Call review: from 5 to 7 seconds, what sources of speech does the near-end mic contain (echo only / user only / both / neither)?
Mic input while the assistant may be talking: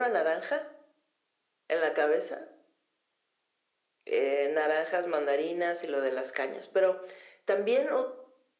echo only